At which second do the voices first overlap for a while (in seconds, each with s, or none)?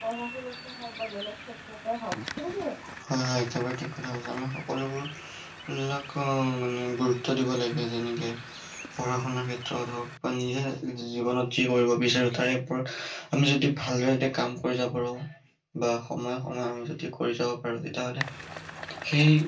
none